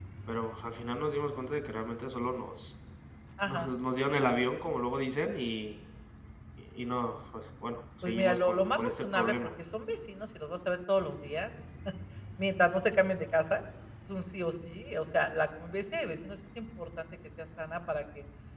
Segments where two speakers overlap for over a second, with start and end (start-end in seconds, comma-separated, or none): 8.0-9.3